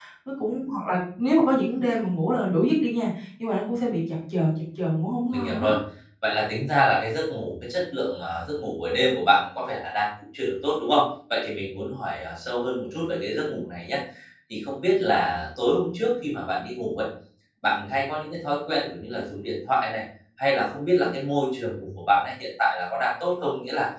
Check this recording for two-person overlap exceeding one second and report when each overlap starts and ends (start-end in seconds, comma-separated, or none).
none